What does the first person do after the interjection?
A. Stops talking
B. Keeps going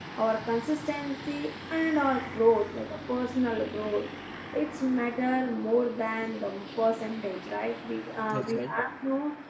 B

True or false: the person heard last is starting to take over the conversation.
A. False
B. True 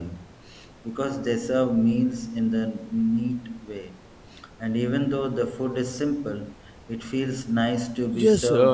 B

